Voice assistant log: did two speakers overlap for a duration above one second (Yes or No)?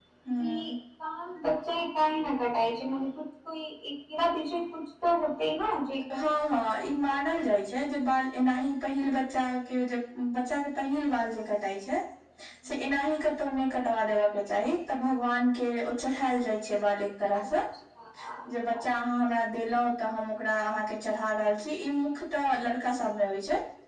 No